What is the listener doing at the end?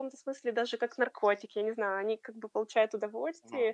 listening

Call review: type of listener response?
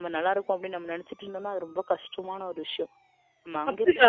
taking over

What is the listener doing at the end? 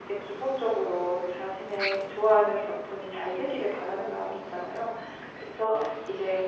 listening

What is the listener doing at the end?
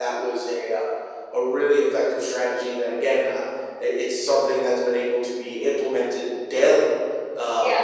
listening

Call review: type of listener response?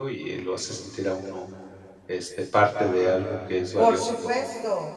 taking over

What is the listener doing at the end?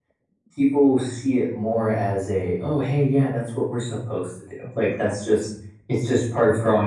listening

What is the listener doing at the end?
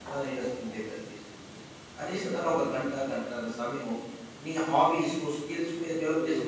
taking over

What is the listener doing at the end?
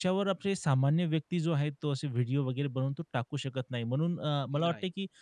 listening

